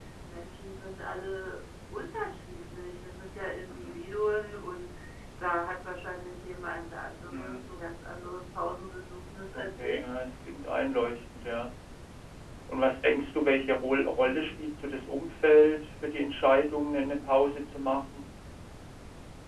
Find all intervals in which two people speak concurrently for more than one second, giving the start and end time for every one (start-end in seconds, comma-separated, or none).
none